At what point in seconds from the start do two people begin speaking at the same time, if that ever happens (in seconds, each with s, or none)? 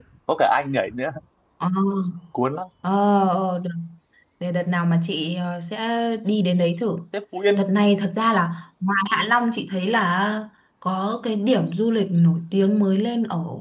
none